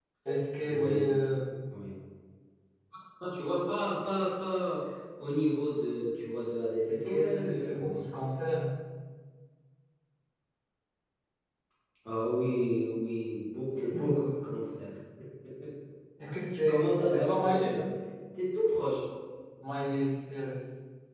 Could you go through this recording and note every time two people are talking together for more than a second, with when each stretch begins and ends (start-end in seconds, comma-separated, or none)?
6.9-8.1, 16.5-17.7